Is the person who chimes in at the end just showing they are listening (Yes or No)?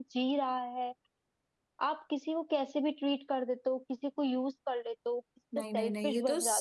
No